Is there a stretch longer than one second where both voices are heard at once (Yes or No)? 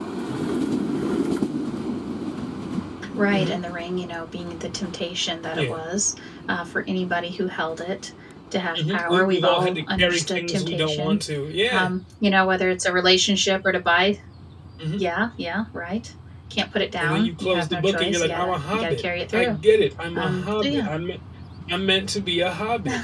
Yes